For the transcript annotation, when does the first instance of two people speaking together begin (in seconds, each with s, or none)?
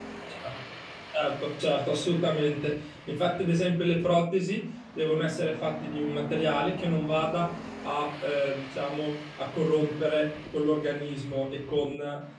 none